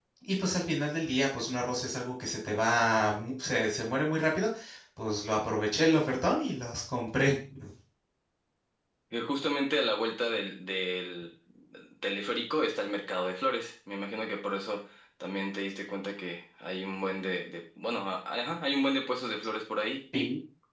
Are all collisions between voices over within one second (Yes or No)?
Yes